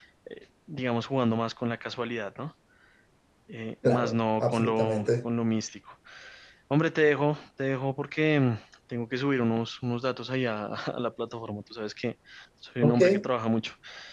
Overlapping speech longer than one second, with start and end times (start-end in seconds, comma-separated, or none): 3.8-5.1